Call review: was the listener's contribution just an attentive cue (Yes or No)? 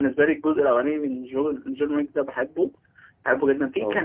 Yes